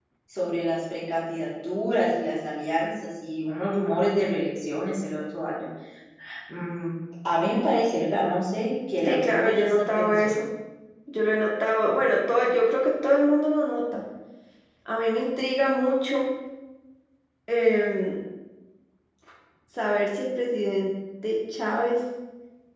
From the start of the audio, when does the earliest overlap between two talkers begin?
9.0 s

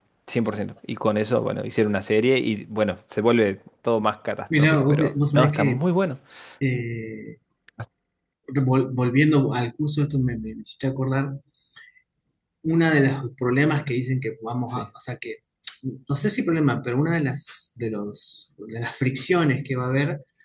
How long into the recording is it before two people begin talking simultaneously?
4.5 s

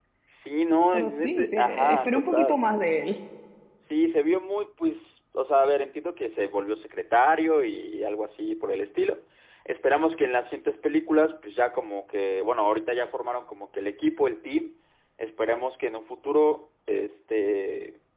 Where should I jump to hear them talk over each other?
0.9 s

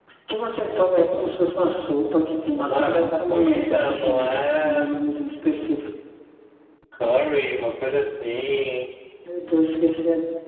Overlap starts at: 2.6 s

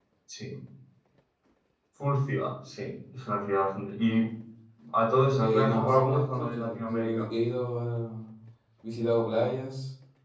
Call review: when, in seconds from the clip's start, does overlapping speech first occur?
5.4 s

